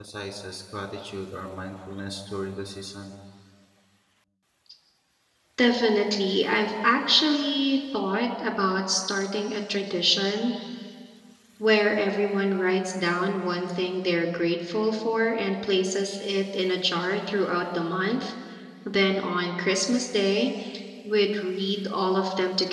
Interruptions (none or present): none